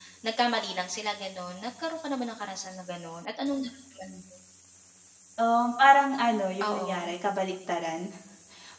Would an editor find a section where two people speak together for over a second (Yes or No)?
No